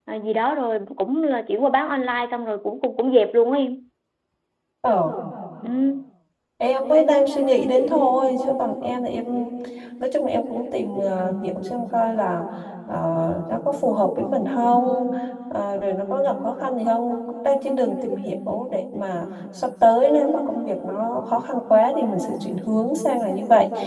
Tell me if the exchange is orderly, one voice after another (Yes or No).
Yes